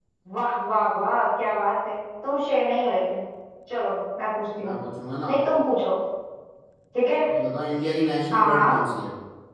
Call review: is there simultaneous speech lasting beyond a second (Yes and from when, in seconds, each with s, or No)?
No